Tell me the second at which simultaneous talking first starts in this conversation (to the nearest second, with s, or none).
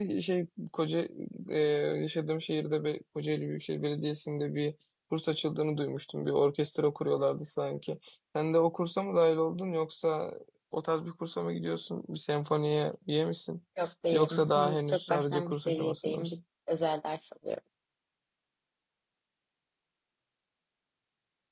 14 s